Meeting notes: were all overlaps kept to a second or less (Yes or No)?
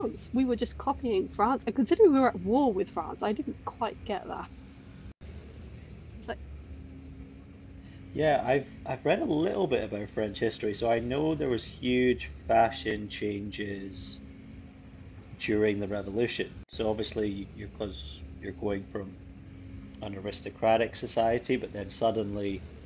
Yes